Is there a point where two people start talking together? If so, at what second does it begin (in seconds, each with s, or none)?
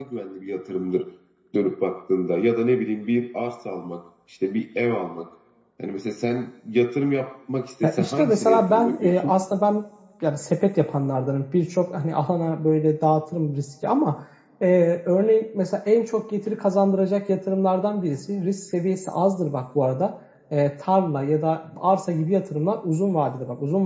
7.8 s